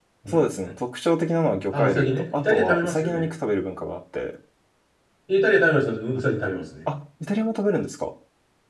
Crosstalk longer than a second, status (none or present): present